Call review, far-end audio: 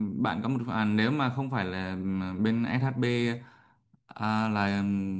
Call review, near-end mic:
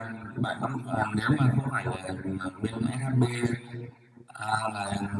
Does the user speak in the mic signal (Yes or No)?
No